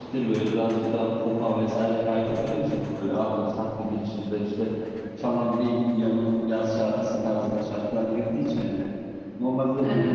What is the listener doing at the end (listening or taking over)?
listening